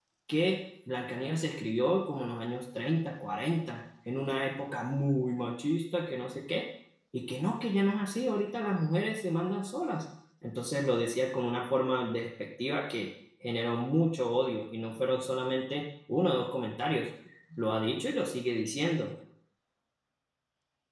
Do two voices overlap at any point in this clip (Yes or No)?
No